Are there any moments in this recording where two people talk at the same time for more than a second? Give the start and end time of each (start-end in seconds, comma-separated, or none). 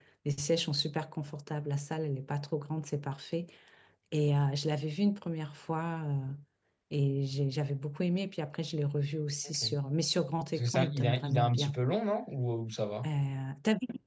10.5-11.8